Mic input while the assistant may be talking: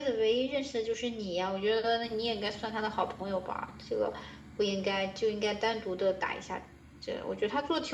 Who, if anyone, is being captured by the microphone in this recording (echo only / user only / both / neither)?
echo only